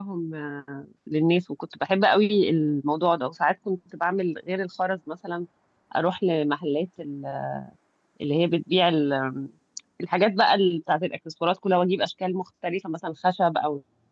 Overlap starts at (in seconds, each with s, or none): none